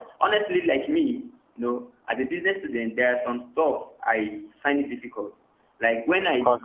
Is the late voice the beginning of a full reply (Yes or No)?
No